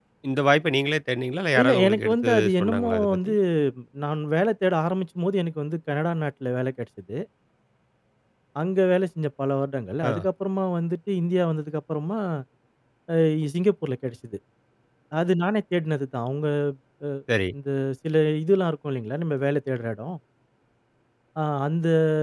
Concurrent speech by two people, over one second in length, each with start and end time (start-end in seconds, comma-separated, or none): 1.6-3.3